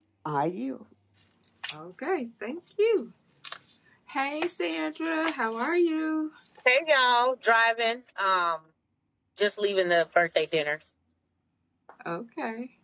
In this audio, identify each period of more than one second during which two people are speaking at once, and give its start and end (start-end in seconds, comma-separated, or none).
none